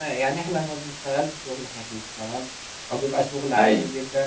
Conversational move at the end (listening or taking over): listening